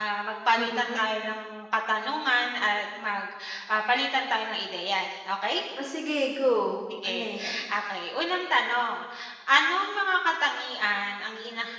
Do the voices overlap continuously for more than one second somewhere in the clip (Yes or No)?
No